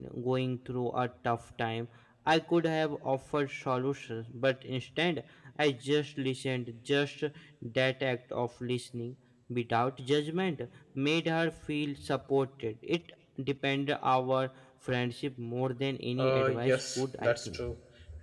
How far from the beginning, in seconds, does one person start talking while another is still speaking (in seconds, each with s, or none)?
16.2 s